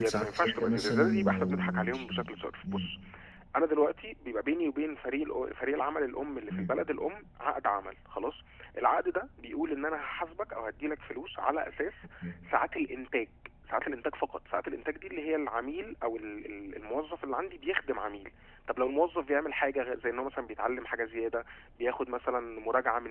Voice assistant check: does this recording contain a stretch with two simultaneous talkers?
Yes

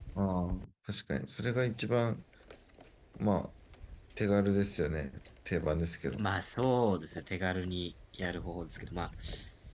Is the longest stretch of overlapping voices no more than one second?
Yes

